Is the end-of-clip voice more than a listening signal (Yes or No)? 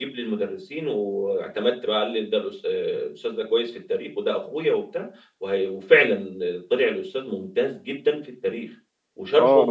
Yes